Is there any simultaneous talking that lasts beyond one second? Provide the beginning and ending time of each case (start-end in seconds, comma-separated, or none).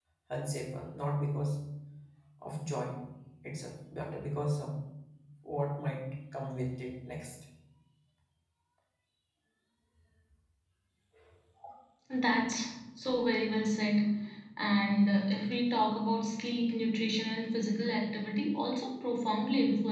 none